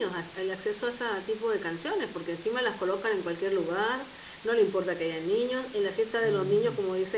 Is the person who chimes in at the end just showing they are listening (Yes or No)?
Yes